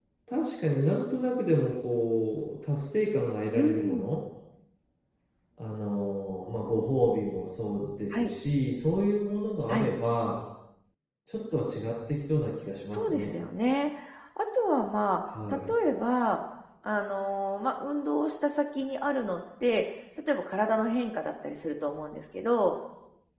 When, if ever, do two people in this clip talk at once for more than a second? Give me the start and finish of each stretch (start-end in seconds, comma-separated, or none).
none